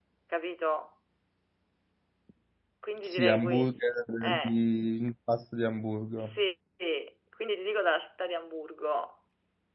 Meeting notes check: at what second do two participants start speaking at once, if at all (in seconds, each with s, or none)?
3.0 s